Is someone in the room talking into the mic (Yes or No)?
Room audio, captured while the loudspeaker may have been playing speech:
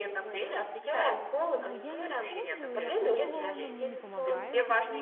Yes